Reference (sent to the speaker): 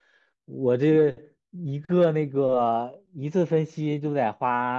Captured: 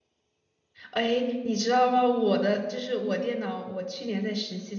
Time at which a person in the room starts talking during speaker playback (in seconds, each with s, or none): 0.9 s